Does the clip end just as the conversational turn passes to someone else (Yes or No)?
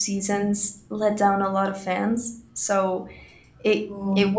No